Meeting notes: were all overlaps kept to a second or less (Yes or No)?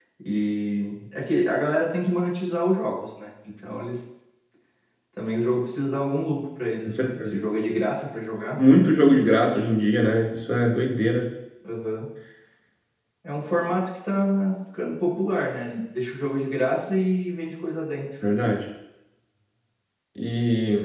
Yes